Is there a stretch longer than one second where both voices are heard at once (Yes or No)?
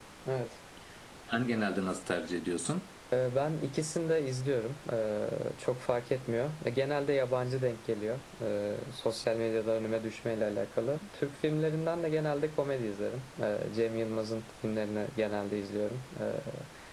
No